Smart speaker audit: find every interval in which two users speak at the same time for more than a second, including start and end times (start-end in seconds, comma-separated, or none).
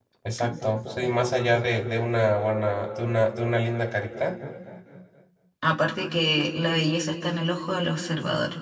none